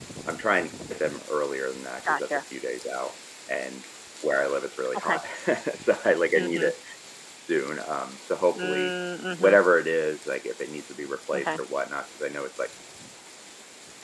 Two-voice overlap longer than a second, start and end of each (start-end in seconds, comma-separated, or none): none